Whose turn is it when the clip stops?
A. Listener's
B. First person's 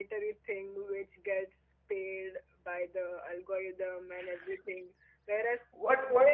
A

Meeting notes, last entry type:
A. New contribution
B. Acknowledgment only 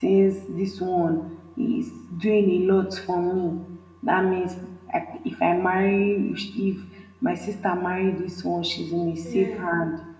B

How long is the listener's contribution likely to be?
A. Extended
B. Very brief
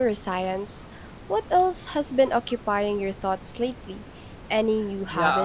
A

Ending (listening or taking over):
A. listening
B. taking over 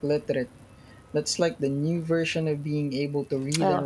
B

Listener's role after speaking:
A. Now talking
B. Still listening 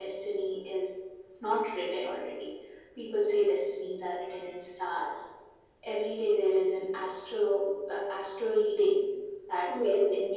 B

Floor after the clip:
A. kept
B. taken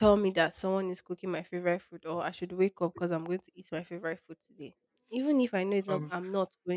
A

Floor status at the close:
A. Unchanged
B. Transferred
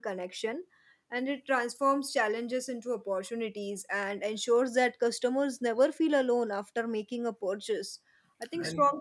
A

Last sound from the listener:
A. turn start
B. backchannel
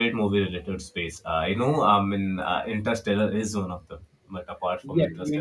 A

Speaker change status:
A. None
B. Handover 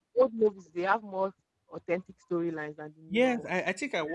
B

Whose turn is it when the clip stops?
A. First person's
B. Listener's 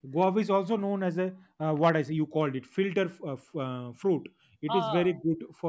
A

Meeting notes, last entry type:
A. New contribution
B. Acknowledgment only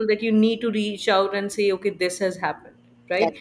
B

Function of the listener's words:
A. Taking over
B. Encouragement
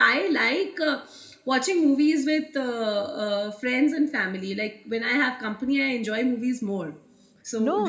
A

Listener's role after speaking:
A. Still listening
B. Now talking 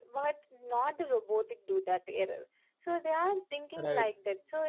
A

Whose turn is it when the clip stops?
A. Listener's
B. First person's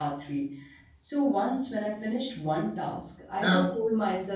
B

